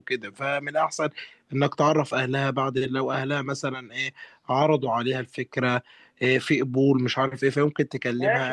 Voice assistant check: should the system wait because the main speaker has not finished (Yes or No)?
No